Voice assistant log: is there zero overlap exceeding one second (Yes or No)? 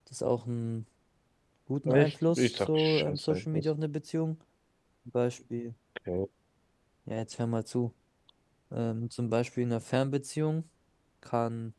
No